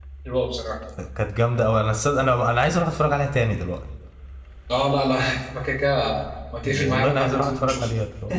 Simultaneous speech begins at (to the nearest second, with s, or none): 7 s